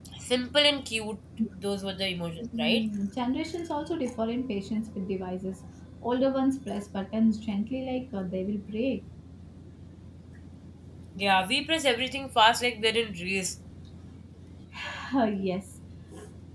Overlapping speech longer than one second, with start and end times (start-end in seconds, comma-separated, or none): none